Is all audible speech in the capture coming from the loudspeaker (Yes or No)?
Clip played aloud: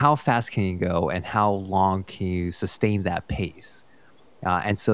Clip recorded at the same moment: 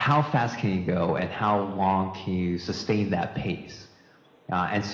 Yes